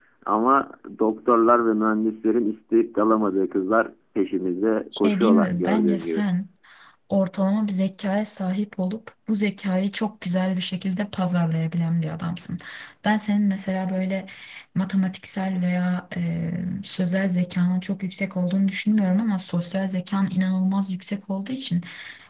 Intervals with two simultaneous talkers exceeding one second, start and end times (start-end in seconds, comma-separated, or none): 5.0-6.2